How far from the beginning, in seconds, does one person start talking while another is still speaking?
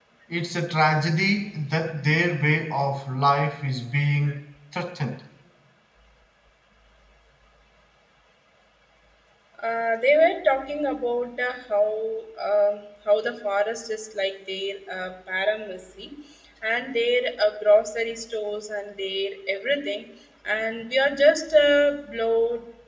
none

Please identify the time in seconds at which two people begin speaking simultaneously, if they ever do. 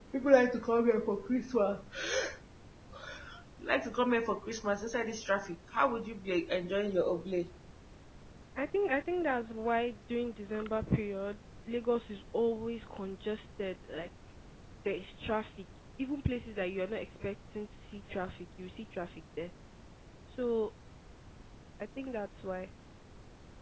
none

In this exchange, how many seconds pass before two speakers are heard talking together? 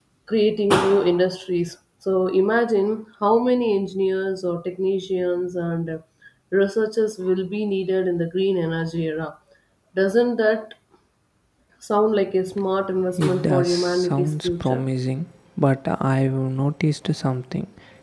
13.2 s

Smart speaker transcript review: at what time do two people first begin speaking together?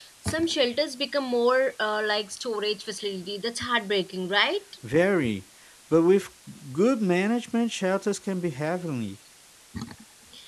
none

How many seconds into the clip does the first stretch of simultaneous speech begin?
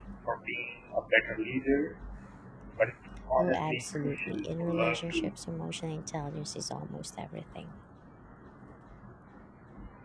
3.4 s

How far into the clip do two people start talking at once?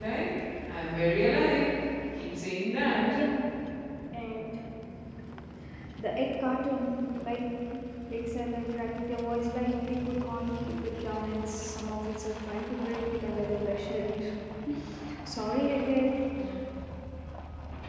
none

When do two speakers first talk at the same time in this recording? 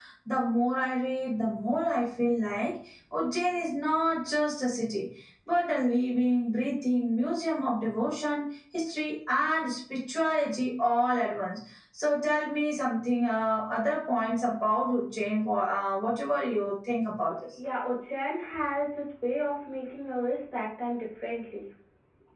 none

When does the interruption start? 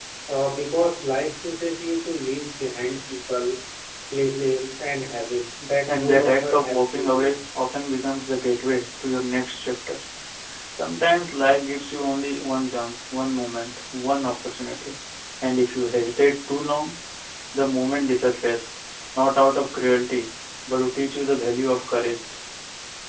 5.9 s

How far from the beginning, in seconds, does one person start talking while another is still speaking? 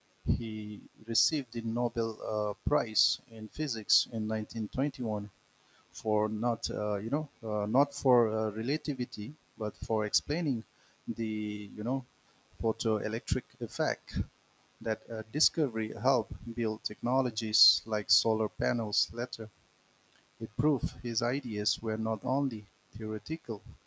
none

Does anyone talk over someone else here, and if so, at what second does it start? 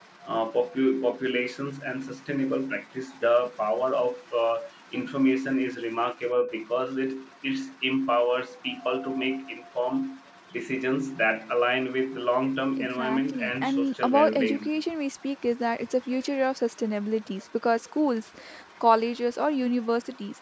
12.8 s

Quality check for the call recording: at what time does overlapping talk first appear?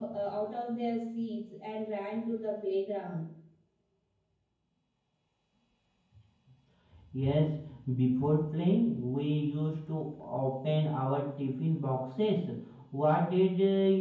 none

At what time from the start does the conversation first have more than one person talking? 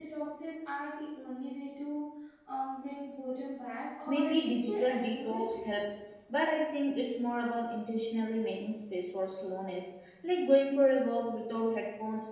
4.1 s

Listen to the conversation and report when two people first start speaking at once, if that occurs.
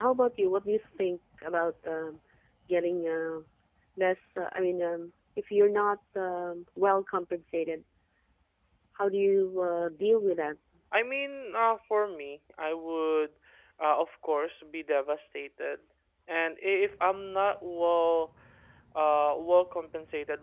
none

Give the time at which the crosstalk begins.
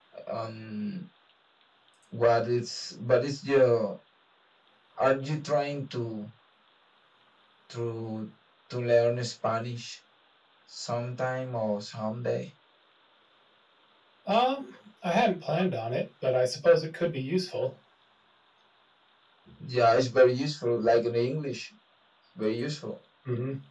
none

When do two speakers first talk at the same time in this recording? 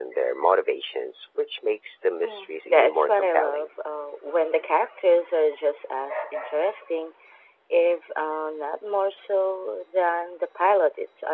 2.2 s

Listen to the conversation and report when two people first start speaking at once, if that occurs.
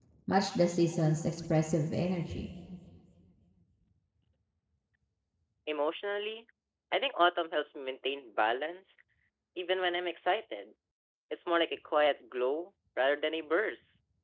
none

